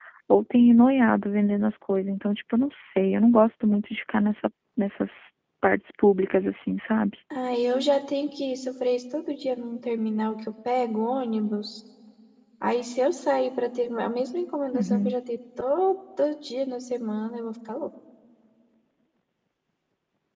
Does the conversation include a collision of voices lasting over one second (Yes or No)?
No